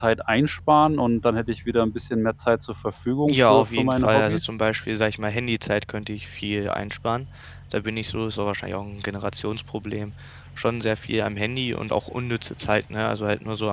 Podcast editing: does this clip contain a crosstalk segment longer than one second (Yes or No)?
Yes